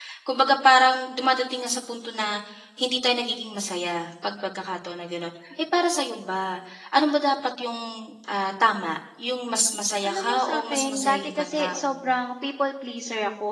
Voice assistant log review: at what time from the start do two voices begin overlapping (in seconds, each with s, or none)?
10.0 s